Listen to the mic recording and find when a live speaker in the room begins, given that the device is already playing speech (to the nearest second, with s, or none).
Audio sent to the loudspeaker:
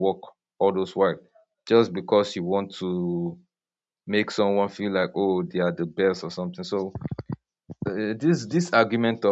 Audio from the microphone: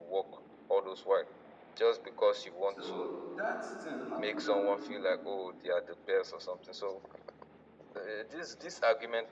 3 s